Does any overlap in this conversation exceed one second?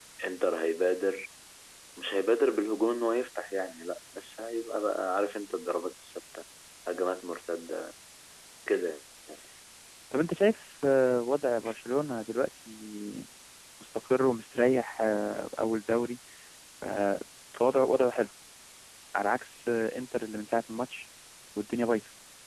No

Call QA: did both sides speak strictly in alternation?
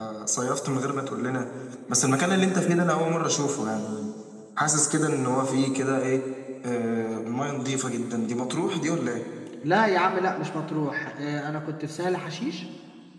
Yes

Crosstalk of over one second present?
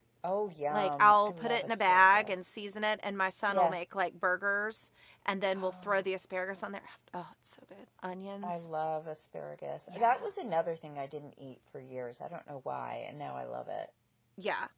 Yes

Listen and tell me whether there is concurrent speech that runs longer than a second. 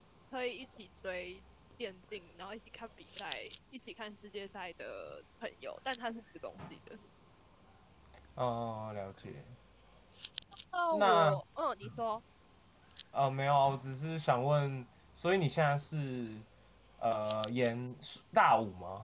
No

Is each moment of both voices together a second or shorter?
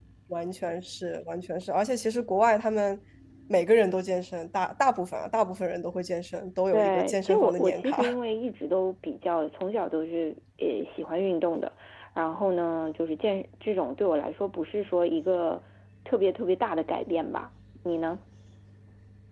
No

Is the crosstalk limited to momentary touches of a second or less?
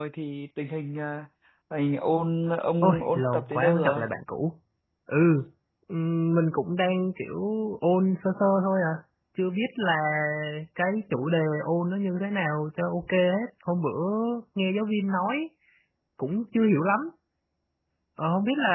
No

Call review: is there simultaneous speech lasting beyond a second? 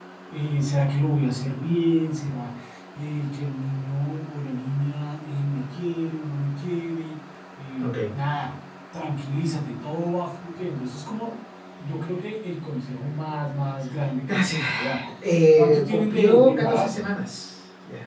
Yes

